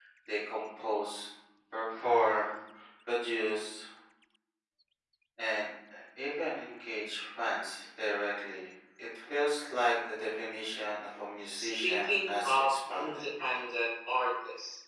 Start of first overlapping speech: 11.6 s

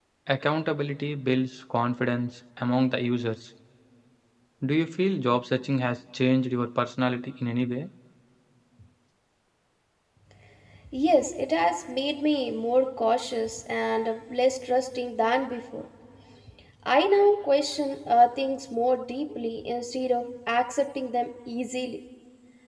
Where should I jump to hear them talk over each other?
none

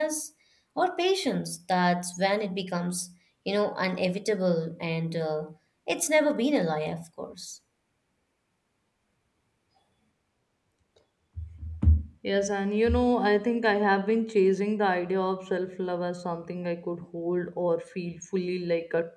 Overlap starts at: none

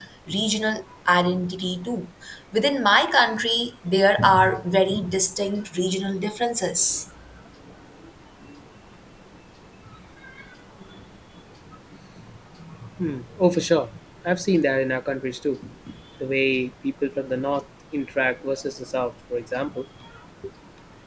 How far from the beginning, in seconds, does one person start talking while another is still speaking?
none

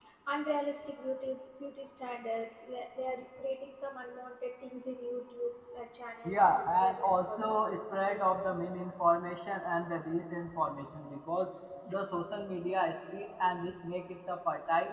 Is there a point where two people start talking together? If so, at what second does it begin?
6.2 s

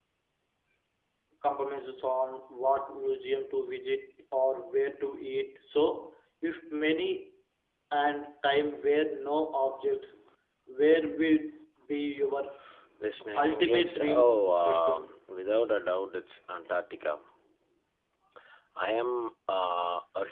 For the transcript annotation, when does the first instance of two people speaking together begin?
13.4 s

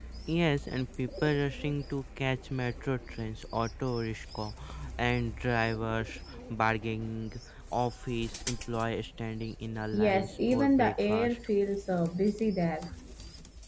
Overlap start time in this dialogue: 9.9 s

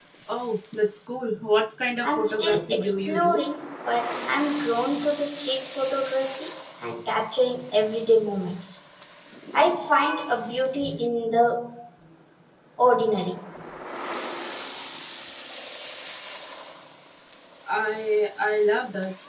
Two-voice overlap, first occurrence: 2.0 s

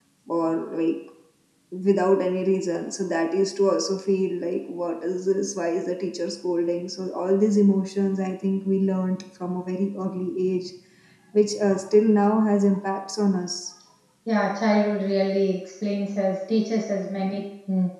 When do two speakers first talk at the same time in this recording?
none

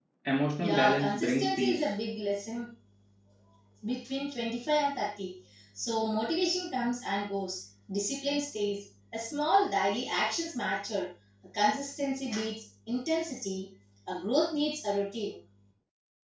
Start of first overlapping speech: 0.6 s

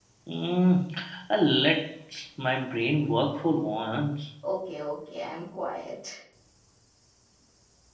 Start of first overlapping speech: none

